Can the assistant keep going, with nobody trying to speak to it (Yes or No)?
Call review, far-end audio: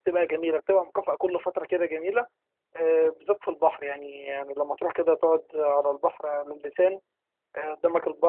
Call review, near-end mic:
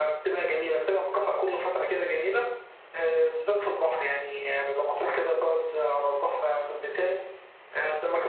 Yes